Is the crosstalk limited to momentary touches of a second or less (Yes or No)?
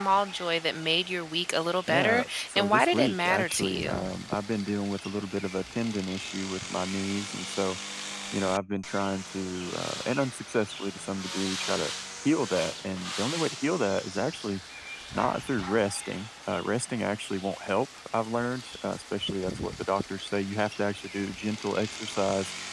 No